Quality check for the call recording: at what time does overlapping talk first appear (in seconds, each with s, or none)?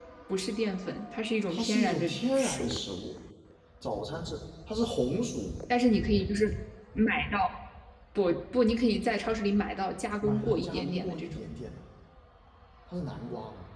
1.5 s